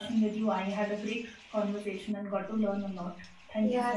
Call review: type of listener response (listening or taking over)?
taking over